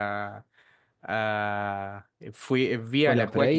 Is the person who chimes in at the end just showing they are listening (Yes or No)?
No